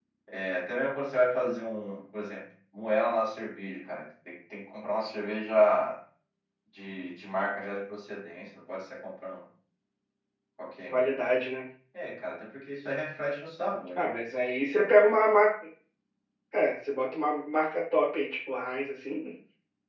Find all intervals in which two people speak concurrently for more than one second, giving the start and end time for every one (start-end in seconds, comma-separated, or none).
none